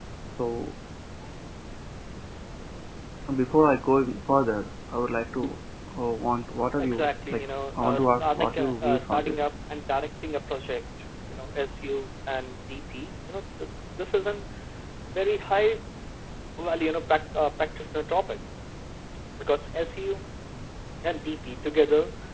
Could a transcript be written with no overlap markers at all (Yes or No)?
No